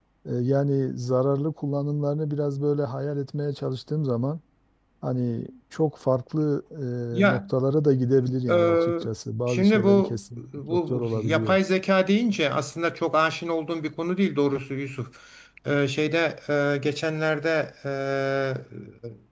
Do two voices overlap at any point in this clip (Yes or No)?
Yes